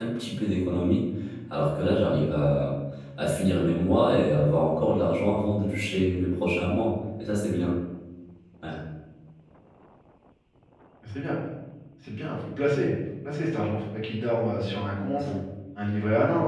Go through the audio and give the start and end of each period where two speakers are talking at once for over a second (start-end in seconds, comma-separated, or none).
none